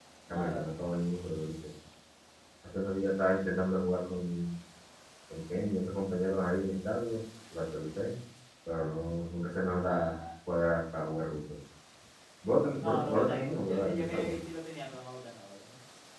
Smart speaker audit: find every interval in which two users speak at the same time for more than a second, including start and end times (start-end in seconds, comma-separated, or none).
12.8-14.3